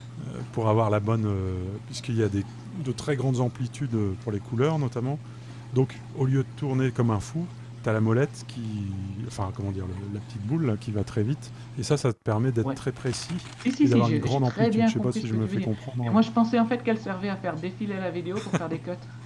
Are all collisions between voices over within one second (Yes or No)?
No